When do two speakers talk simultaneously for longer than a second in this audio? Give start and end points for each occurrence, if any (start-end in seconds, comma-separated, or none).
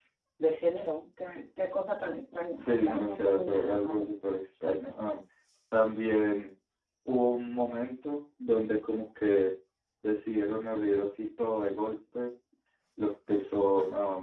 2.6-4.1